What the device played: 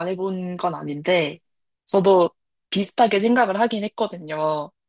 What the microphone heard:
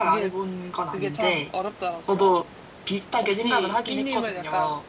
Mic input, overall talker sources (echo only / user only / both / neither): both